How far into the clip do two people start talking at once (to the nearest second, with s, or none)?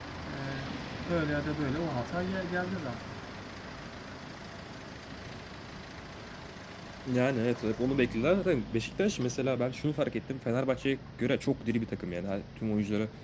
none